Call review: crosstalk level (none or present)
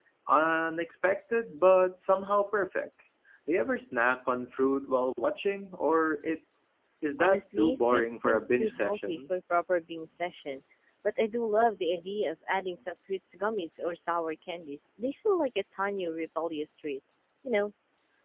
present